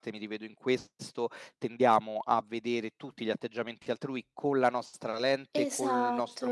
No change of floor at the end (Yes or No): Yes